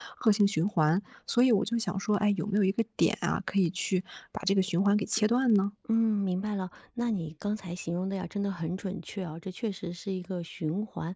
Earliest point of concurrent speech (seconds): none

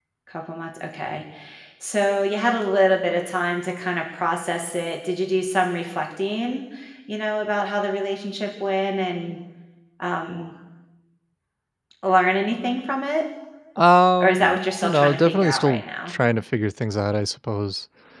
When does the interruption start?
14.2 s

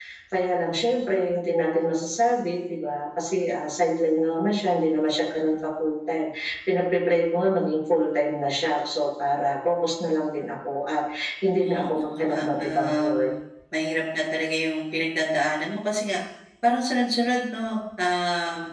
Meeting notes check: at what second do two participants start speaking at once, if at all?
11.5 s

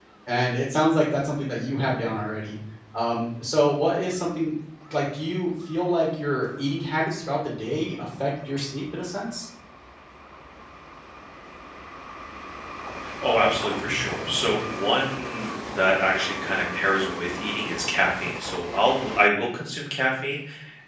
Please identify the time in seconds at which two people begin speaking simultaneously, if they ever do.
none

